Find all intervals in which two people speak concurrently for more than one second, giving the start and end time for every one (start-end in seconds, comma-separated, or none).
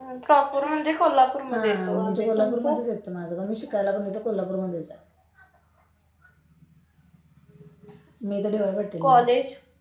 1.5-2.7